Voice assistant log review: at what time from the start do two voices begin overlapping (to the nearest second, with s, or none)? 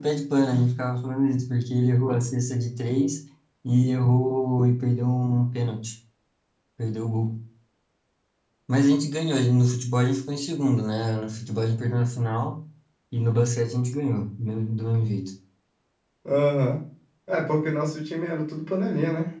none